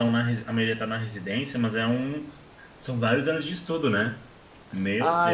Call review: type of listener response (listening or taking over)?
taking over